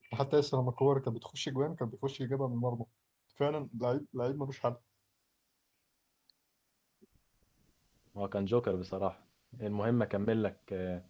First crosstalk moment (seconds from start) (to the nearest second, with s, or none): none